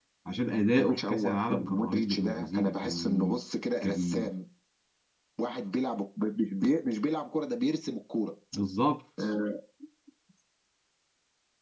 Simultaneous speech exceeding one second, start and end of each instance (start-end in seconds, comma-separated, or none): 0.8-3.4